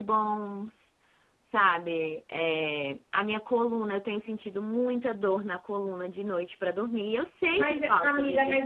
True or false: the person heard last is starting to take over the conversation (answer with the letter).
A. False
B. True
B